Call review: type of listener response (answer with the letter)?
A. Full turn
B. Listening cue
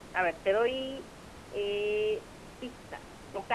B